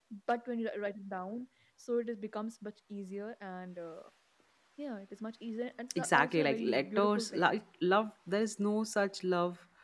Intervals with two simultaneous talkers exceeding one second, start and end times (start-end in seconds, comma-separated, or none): 6.0-7.5